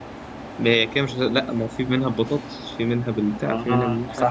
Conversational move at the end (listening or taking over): taking over